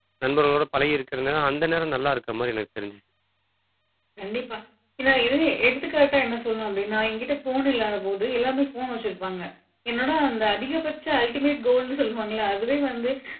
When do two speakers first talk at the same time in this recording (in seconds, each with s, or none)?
none